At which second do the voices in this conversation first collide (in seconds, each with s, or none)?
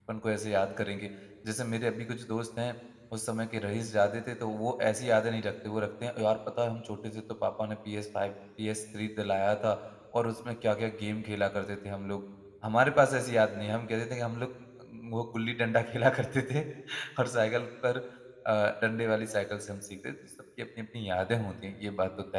none